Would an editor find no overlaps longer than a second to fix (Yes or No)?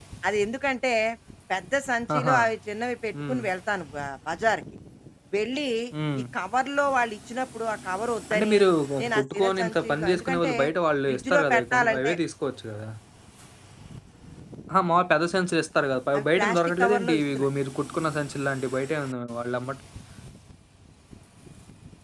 No